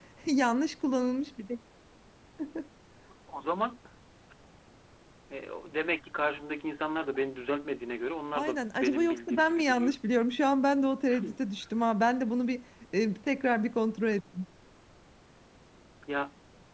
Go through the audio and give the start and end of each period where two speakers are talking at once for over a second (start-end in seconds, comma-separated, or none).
8.3-9.9